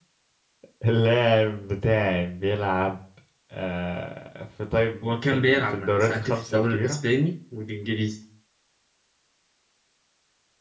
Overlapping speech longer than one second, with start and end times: 5.0-7.0

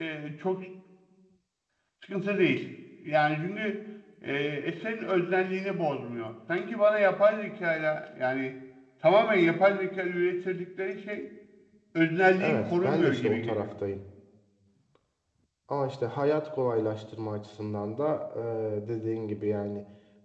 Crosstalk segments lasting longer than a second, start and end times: 12.4-13.7

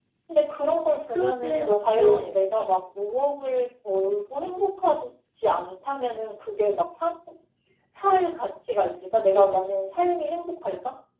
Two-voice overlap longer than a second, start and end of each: 1.1-2.5

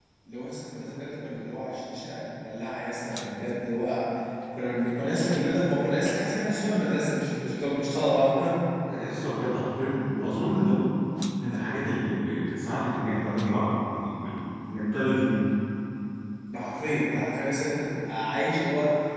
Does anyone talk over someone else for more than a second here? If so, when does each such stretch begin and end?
none

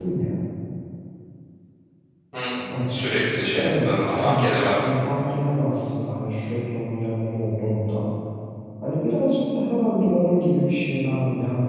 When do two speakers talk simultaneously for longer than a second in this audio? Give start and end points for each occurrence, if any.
3.5-5.0

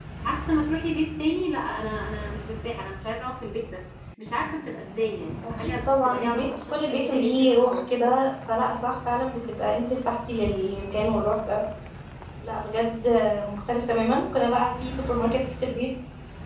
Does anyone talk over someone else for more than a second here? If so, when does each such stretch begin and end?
5.6-7.8

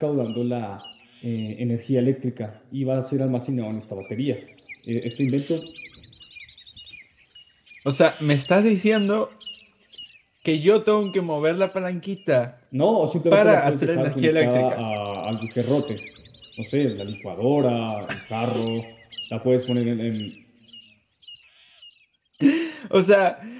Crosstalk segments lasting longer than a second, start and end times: 13.3-14.8

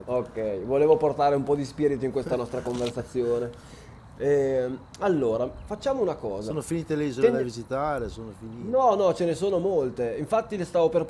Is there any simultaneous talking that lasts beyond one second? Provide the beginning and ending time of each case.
none

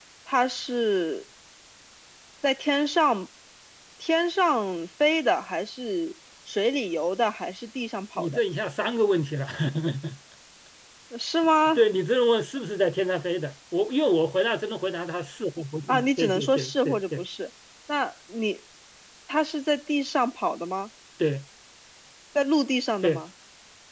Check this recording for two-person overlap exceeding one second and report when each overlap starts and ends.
15.9-17.2

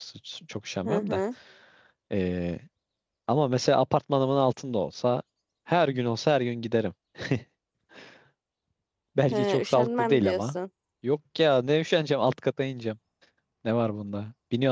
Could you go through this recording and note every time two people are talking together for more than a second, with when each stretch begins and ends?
9.3-10.6

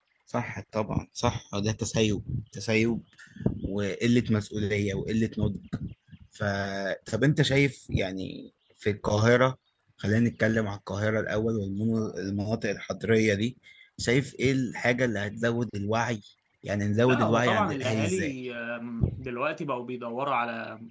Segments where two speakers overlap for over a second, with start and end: 17.1-18.3

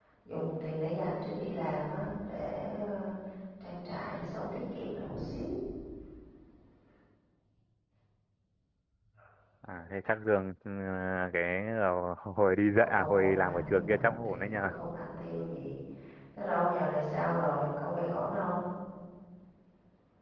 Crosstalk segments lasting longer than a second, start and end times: 12.8-14.7

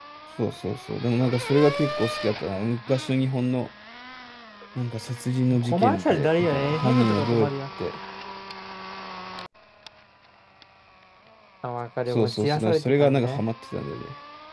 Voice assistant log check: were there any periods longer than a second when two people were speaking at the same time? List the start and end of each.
5.6-7.5, 12.1-13.4

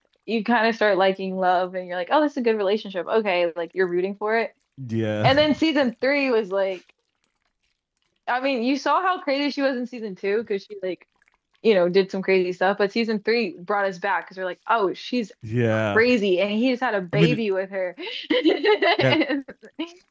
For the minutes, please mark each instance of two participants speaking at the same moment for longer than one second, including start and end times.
none

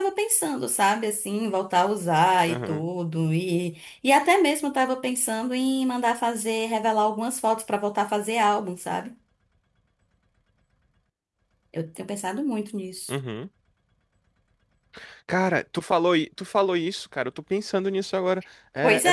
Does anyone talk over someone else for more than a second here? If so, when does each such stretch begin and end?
none

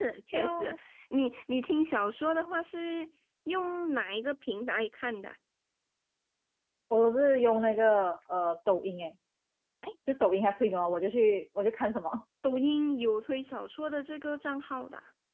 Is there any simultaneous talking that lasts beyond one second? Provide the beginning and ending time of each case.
none

